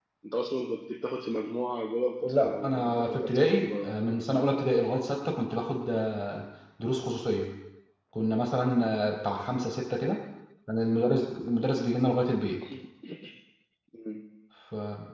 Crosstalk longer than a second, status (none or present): present